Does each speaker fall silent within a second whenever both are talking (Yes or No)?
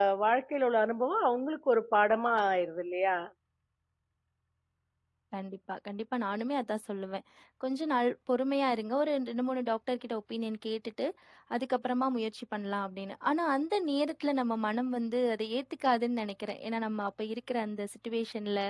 Yes